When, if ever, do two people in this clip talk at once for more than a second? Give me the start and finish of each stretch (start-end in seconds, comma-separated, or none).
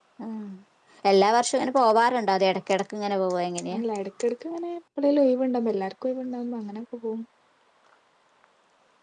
none